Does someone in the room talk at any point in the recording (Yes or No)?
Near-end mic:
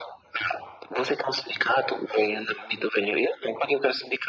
No